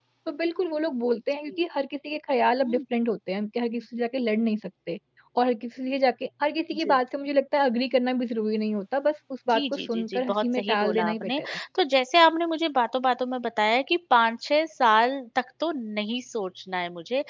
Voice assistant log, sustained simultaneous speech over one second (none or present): present